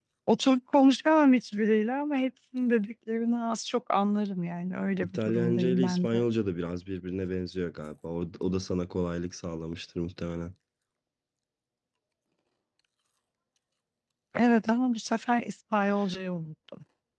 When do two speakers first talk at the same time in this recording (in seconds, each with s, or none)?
5.0 s